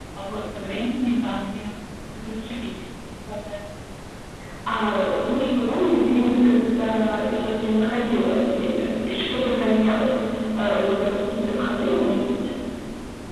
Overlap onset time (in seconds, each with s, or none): none